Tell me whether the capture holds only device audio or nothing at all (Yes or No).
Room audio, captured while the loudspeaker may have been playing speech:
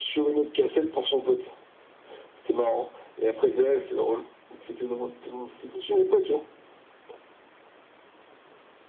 Yes